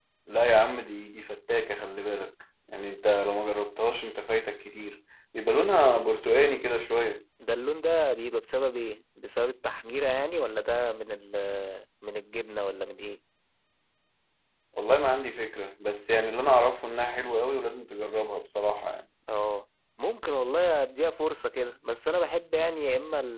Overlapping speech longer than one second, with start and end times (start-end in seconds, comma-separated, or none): none